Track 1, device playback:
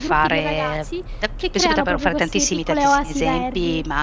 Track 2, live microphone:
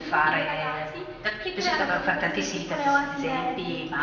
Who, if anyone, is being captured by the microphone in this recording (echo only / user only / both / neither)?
echo only